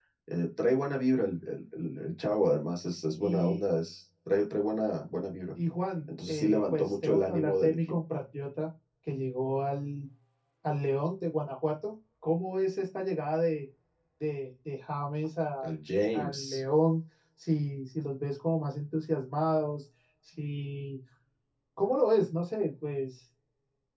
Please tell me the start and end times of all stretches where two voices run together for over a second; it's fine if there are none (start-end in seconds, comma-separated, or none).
6.3-7.9